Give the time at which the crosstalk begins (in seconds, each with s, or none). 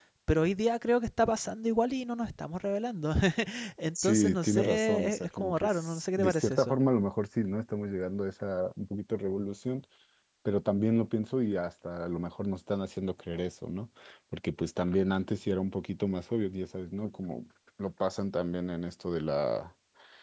4.0 s